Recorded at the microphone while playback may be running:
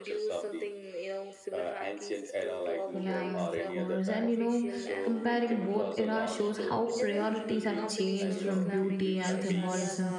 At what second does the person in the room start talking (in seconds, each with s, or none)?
2.9 s